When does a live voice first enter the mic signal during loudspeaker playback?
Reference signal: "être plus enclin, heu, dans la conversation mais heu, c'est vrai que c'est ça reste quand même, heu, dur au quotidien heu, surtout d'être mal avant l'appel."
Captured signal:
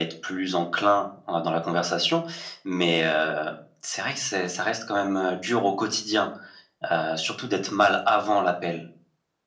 none

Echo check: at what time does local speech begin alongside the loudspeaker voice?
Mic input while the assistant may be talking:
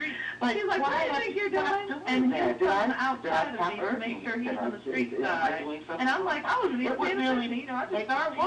none

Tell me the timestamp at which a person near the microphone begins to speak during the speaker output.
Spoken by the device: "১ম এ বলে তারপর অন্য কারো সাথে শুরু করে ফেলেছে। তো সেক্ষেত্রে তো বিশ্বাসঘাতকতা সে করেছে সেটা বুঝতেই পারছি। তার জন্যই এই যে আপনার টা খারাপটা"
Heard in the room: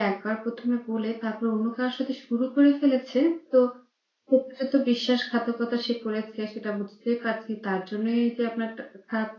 none

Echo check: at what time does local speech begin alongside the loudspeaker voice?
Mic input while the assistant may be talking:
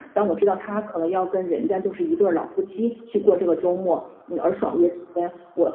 none

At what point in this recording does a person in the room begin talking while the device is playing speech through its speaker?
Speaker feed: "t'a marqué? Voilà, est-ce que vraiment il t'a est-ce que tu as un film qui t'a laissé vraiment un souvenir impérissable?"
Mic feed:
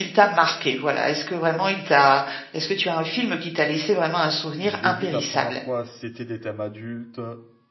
4.5 s

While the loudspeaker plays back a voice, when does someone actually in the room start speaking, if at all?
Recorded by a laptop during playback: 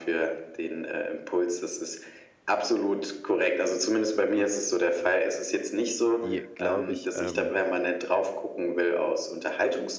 6.2 s

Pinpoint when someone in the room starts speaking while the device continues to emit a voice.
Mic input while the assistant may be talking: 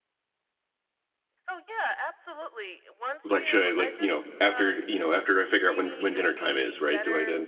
3.2 s

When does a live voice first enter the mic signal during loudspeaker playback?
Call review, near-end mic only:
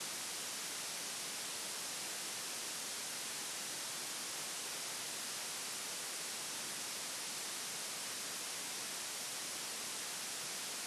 none

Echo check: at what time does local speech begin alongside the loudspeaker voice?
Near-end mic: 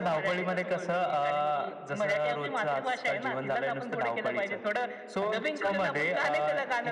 none

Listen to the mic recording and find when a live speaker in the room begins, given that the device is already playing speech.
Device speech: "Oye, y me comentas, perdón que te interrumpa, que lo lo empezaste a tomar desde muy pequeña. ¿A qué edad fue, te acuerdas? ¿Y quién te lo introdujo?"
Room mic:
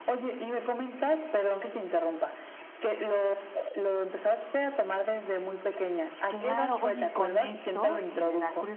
6.3 s

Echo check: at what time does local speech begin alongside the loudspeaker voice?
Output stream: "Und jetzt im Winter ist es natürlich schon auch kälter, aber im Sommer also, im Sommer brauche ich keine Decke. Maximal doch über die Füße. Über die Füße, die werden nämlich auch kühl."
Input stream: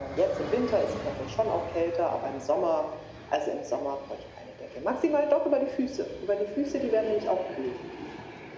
none

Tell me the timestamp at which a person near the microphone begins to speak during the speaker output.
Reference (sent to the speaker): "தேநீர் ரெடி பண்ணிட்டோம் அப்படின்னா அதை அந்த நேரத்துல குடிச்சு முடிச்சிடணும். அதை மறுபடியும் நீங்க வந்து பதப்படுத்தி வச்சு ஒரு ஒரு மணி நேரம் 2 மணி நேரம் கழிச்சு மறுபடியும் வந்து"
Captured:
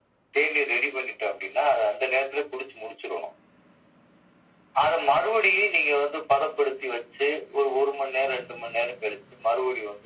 none

